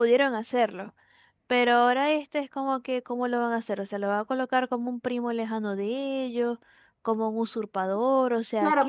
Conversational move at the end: taking over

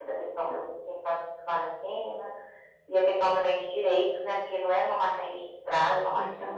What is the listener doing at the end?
taking over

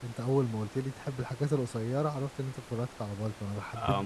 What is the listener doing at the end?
taking over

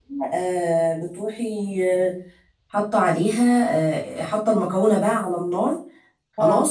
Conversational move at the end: listening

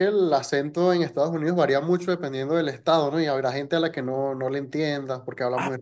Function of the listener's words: taking over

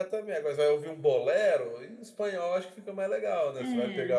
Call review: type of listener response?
taking over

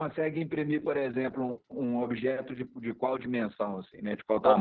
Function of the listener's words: taking over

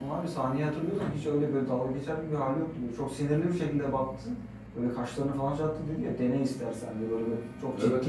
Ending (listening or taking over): listening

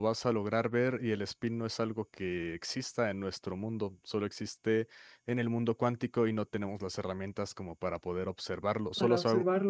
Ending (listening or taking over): listening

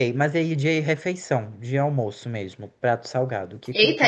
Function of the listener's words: taking over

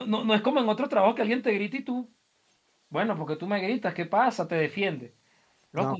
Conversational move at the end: listening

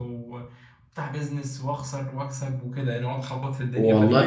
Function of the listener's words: taking over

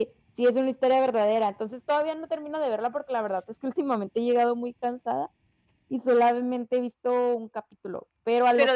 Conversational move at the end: taking over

